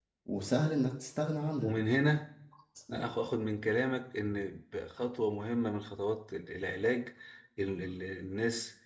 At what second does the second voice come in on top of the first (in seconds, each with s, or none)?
none